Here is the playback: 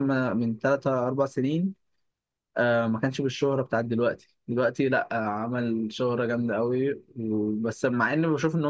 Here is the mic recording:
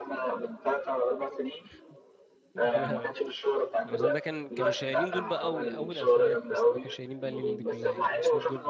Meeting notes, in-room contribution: present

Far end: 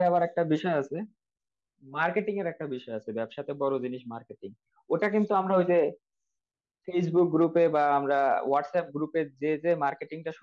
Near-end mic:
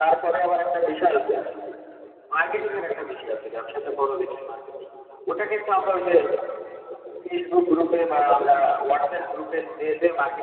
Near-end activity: none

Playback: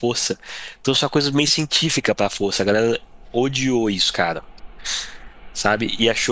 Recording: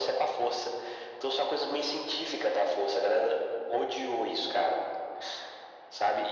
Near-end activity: none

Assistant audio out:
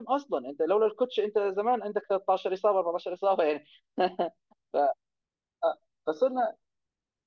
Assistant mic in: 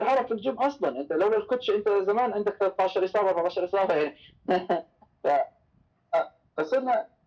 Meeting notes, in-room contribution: none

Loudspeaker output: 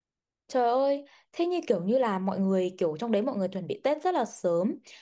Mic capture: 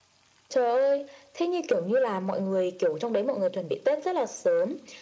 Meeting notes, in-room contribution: none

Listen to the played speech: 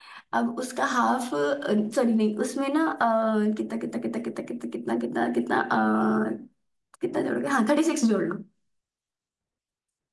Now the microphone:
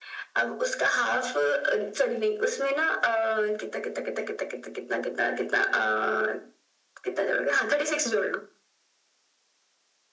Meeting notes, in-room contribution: none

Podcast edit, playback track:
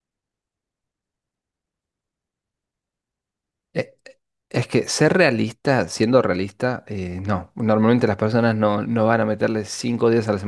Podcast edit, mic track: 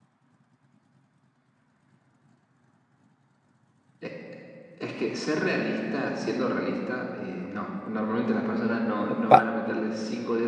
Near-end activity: present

